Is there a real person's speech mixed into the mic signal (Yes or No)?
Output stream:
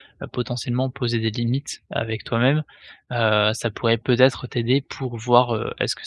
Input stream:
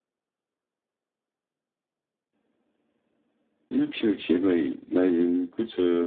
Yes